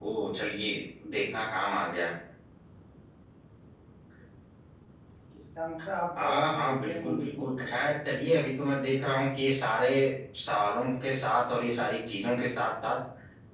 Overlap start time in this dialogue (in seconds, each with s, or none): 6.2 s